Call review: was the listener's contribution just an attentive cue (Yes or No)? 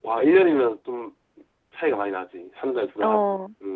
No